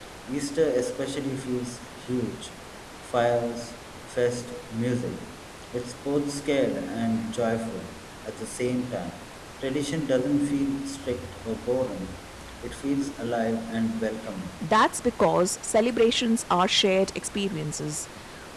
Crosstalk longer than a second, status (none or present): none